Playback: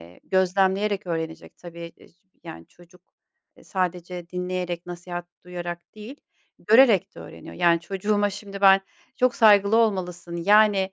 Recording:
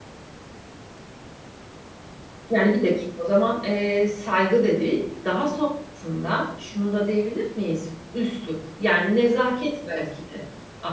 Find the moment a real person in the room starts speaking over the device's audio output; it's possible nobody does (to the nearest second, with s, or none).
3 s